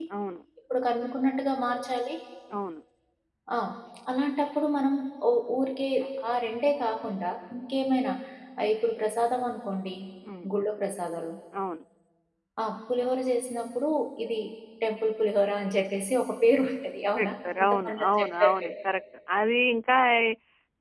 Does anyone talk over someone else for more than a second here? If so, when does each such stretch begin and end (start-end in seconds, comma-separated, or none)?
17.2-18.7